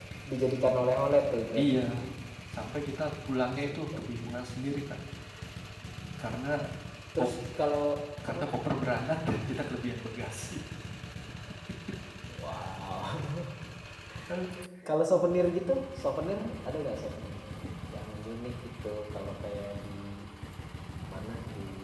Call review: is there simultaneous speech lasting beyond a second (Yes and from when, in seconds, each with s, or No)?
No